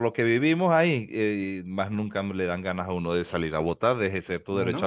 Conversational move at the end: listening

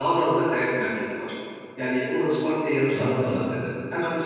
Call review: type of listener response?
listening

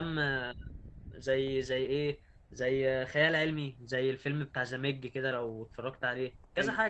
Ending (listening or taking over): taking over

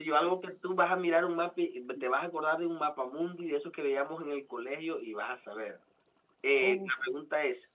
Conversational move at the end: listening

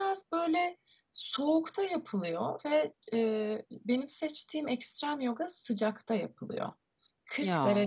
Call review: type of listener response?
listening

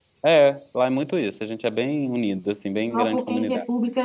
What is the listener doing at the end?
taking over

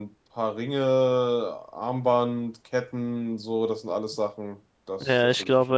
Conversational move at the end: taking over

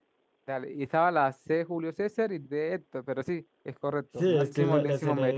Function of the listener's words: taking over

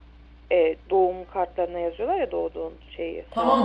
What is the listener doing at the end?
taking over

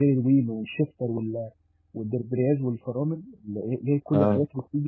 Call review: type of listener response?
listening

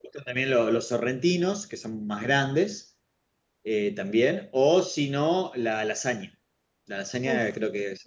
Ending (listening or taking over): listening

